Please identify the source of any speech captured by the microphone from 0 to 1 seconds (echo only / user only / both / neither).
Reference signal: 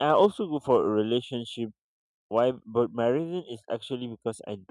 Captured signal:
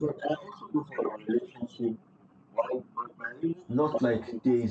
echo only